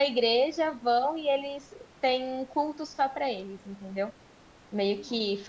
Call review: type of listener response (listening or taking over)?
listening